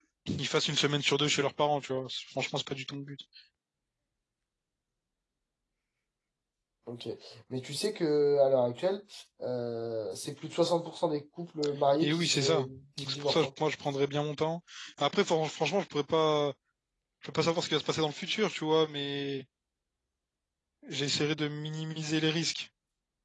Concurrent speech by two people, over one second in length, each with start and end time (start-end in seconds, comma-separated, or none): 12.0-13.4